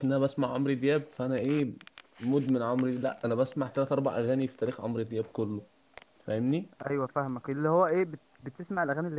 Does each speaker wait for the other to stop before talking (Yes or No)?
Yes